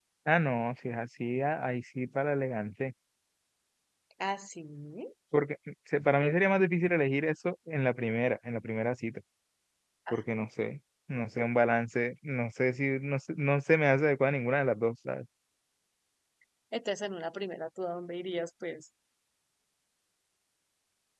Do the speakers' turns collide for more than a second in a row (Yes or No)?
No